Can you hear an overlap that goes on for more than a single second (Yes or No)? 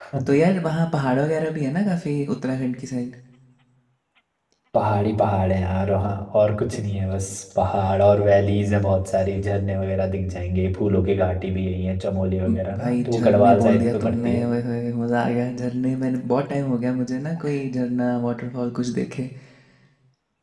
Yes